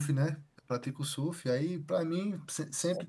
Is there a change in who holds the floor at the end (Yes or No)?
No